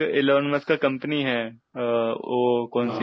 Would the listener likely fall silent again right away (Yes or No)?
Yes